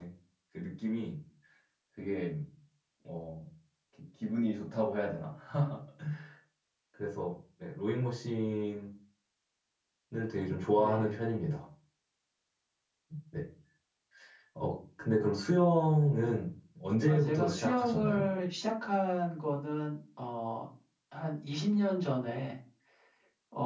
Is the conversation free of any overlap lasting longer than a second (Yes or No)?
No